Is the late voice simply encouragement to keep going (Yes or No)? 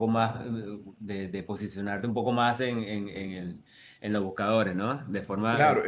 No